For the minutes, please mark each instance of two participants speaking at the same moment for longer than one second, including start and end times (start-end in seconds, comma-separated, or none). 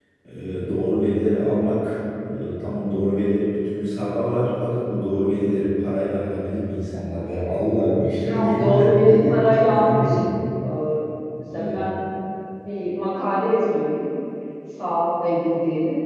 8.2-10.2